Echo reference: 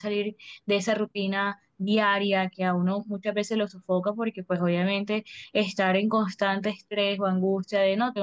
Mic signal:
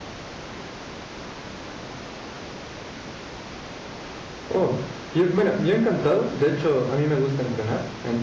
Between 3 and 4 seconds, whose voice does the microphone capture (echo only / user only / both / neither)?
neither